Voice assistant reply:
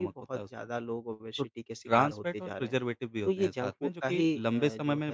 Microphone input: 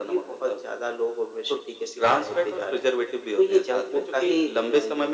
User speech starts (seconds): none

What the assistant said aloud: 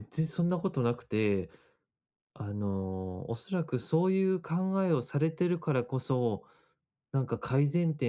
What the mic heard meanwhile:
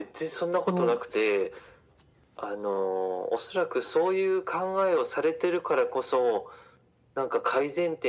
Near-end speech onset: 1 s

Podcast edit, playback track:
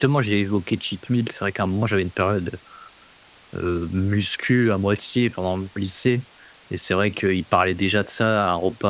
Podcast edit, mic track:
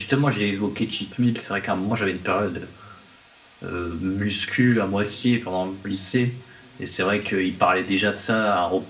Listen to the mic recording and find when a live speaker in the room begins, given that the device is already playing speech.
none

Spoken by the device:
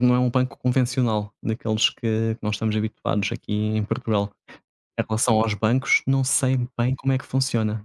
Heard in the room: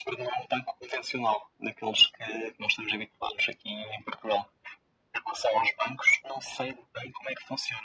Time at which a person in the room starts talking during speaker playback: none

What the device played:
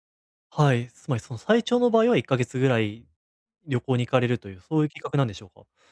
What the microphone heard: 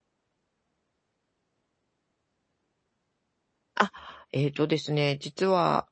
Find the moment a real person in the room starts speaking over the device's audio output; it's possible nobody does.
4 s

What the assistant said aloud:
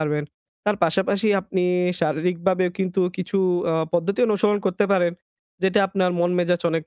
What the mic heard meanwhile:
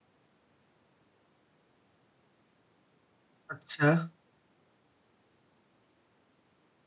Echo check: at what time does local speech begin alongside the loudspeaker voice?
4 s

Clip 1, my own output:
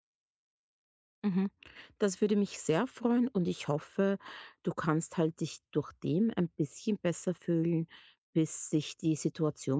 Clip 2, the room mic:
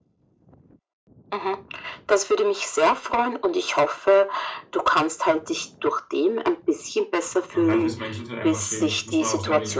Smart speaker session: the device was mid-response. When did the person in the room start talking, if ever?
8 s

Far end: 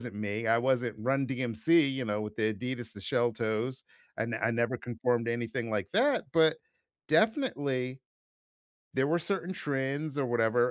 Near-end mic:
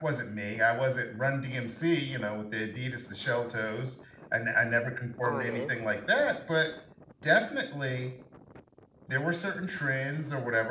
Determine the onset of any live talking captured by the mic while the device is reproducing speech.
5 s

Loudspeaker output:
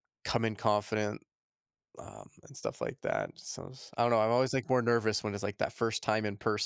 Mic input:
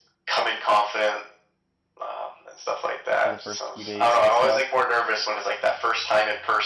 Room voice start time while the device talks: 3 s

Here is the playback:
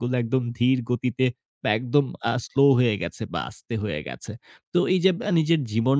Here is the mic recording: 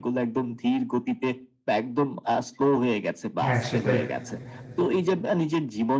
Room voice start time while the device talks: 3 s

